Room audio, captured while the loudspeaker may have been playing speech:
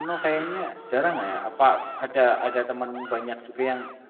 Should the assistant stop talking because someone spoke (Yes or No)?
Yes